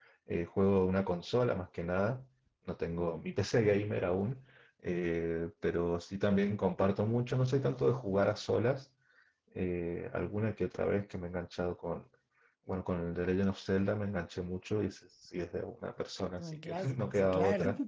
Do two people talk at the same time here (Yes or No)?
Yes